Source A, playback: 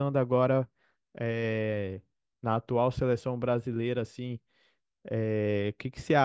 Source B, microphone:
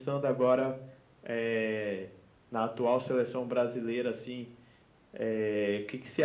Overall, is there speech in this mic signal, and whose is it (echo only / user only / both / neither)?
echo only